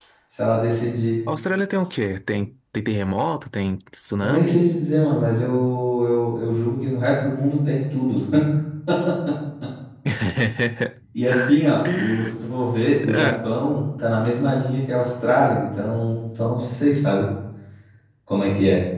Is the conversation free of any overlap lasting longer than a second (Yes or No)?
Yes